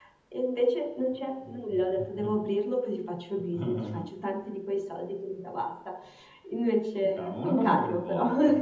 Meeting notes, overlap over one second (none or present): present